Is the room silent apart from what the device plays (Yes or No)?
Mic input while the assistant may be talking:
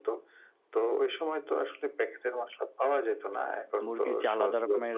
No